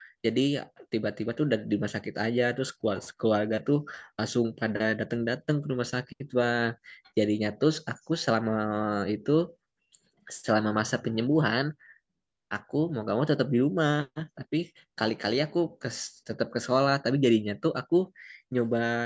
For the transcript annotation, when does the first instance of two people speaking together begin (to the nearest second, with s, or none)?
none